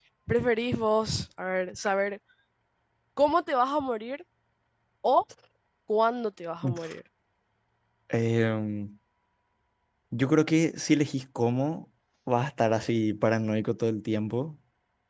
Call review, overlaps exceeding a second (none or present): none